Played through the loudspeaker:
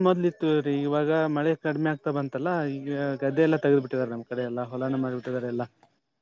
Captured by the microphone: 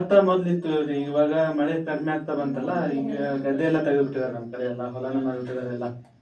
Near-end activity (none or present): present